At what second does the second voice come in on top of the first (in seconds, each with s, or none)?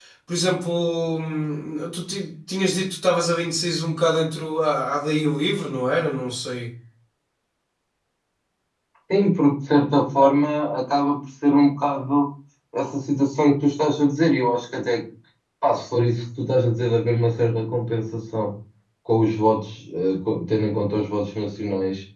none